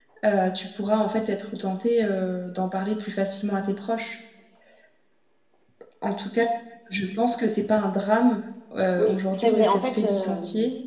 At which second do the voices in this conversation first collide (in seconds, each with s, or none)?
9.0 s